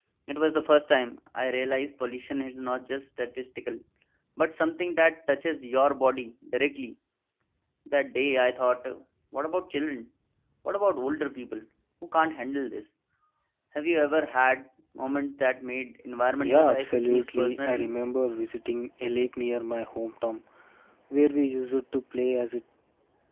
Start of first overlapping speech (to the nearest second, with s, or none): 16 s